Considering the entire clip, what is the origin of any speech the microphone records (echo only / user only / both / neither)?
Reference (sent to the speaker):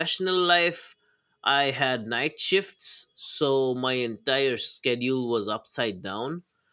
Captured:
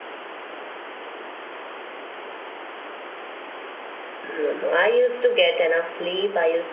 user only